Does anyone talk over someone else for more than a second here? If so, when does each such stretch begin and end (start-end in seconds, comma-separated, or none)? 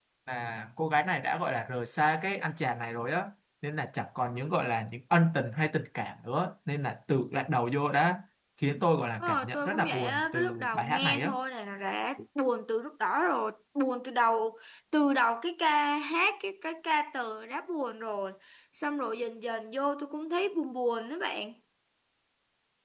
9.2-11.3